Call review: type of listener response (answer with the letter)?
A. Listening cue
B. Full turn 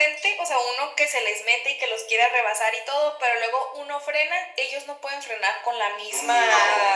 A